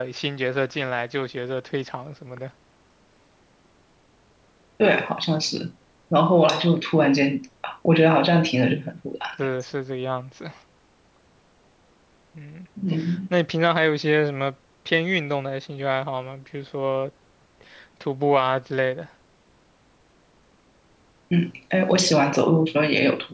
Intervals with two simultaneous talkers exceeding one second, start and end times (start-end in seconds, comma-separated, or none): none